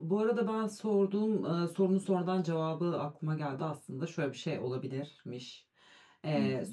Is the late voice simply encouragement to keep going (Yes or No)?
Yes